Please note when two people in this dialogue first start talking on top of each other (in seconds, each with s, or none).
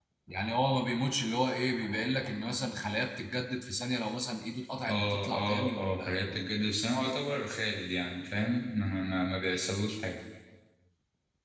4.9 s